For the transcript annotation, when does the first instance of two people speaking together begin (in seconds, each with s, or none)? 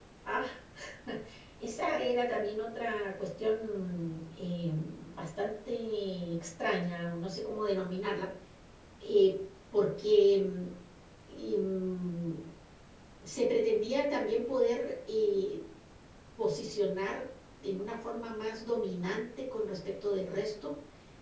none